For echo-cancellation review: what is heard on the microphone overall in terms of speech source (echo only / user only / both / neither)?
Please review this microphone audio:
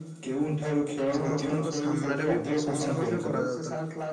both